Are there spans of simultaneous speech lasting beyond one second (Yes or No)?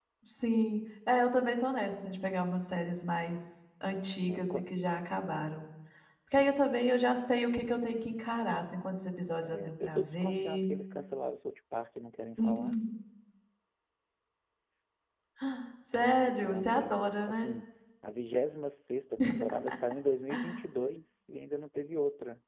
Yes